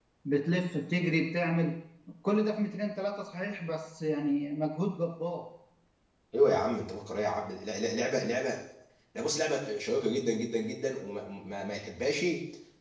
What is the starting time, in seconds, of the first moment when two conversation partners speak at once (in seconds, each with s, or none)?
none